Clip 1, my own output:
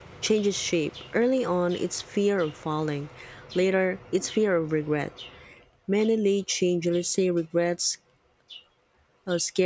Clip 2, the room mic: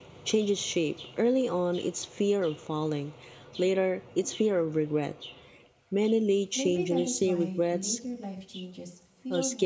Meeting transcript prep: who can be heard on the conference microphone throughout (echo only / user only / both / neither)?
both